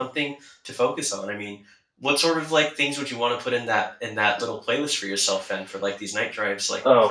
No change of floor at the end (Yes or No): No